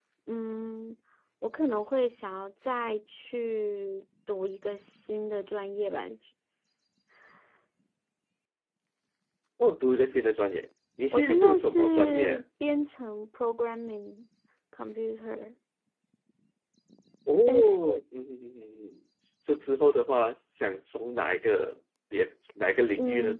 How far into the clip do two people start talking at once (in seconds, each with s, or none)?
11.1 s